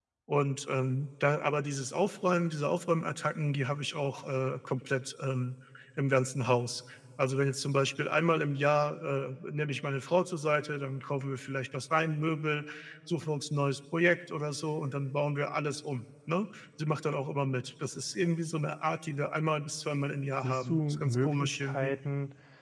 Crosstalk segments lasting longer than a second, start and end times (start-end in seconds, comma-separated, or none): 20.4-21.9